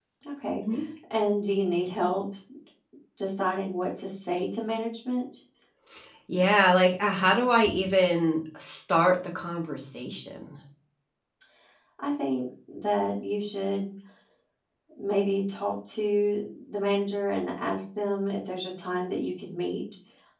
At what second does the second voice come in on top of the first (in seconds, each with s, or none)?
none